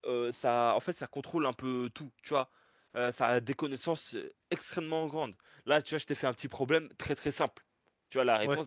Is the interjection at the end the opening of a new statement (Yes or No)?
No